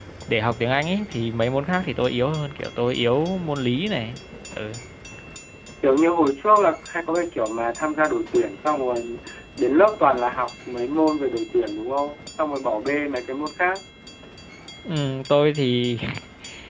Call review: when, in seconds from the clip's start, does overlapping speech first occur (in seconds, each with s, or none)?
none